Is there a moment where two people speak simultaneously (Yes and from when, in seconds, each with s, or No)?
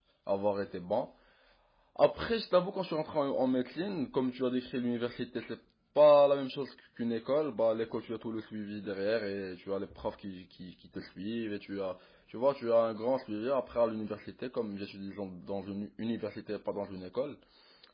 No